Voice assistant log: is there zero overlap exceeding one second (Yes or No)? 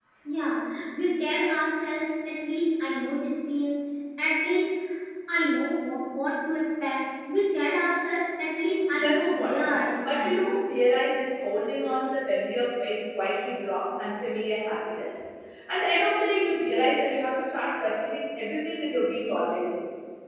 No